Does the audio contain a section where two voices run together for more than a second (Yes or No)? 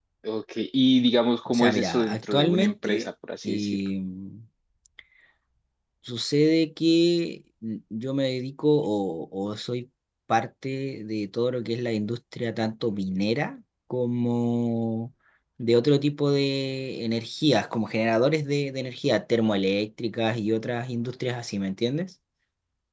Yes